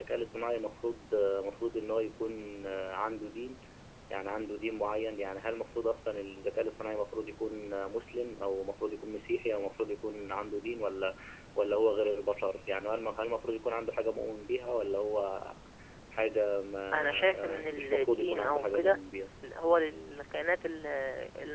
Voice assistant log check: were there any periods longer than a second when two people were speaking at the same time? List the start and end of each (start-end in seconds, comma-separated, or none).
16.9-19.0